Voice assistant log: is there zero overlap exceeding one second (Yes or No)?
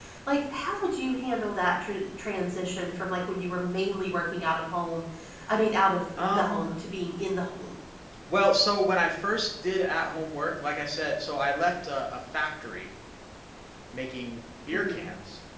Yes